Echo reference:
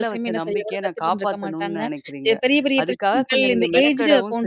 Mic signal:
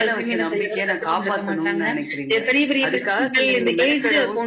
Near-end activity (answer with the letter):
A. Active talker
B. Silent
B